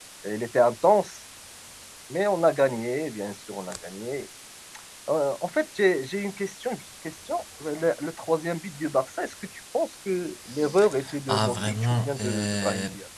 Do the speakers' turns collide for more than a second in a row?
Yes, from 11.3 s

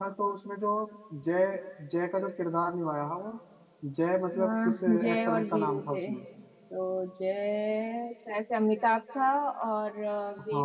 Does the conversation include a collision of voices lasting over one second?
Yes, from 4.3 s

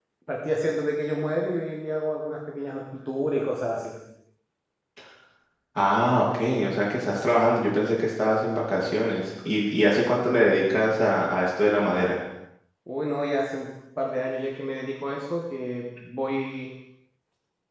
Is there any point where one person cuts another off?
No

